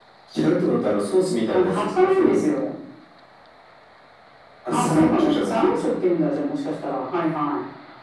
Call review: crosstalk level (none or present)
present